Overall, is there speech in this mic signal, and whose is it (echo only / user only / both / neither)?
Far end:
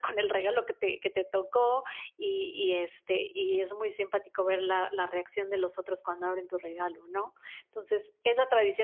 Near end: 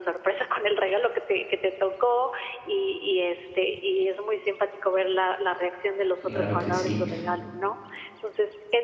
both